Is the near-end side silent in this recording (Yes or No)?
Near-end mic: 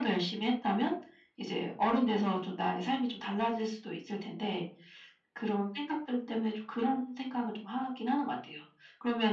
Yes